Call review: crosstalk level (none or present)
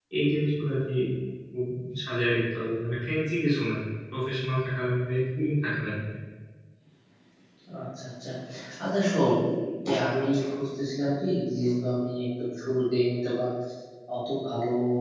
none